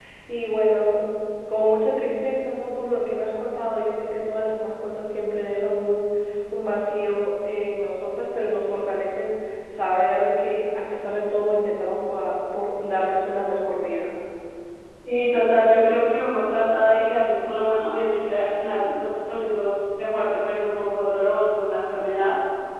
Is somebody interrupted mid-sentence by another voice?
No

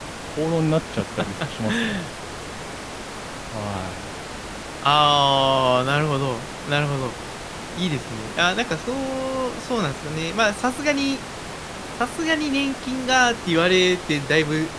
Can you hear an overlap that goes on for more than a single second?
No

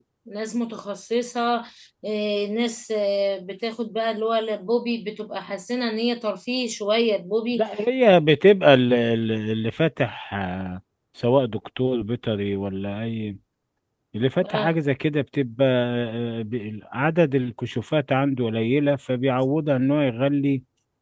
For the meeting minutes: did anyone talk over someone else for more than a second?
No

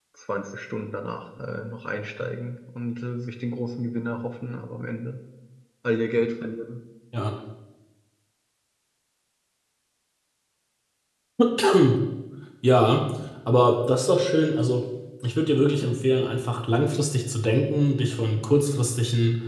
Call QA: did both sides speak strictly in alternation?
Yes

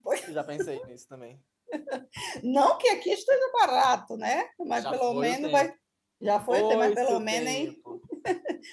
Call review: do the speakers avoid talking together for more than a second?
No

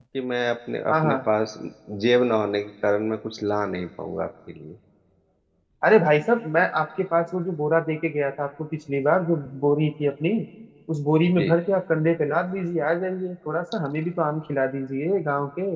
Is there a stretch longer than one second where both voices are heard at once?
No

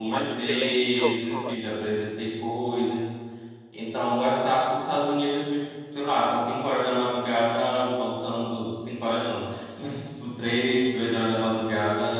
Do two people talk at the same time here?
Yes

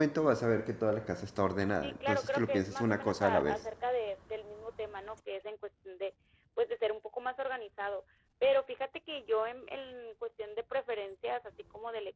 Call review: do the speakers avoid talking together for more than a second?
No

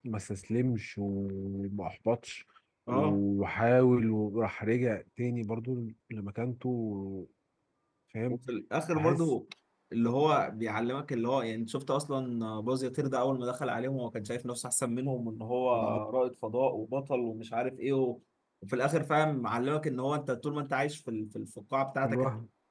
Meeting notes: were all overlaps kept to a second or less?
Yes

